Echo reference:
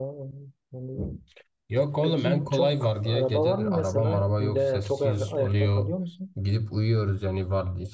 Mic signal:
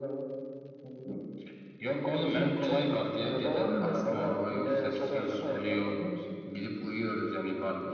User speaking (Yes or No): No